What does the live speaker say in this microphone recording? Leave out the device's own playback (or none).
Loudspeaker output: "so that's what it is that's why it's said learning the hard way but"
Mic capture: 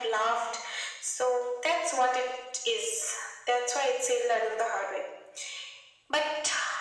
none